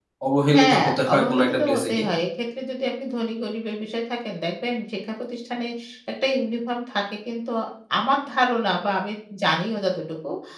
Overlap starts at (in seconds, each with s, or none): 0.5 s